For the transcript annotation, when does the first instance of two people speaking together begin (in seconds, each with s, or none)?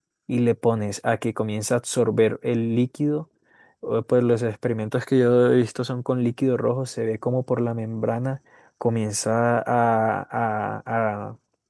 none